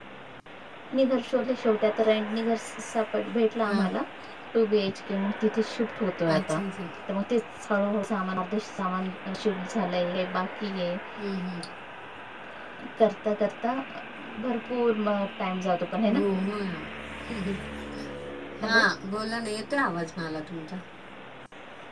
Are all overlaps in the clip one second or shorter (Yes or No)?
Yes